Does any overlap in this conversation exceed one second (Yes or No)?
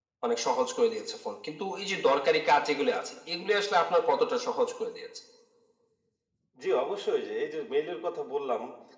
No